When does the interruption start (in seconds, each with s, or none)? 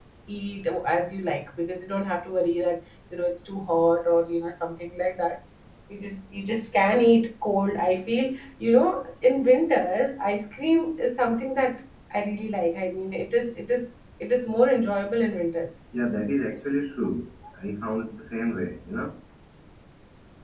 none